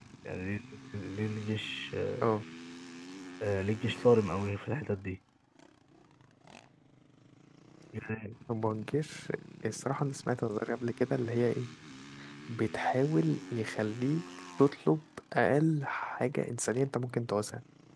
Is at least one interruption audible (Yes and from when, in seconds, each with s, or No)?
No